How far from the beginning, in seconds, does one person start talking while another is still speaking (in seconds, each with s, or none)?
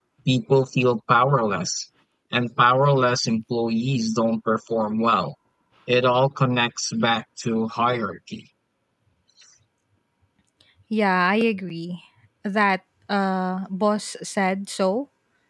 none